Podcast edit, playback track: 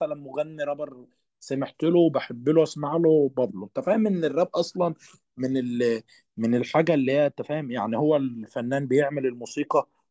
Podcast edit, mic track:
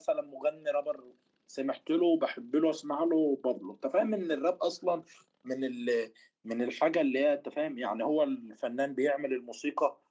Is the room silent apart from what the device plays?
Yes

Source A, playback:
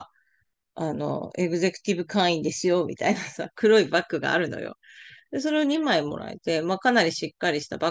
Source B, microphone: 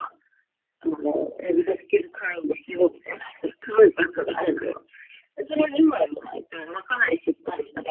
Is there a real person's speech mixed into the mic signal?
No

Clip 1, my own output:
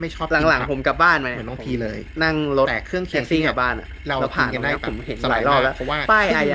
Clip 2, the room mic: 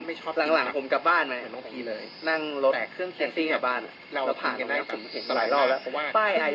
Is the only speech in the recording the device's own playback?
Yes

